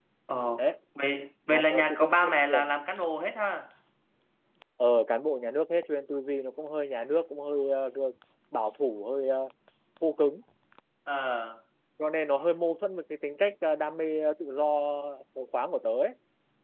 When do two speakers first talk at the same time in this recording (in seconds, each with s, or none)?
1.5 s